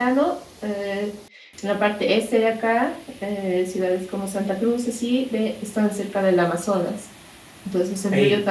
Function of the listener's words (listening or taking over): listening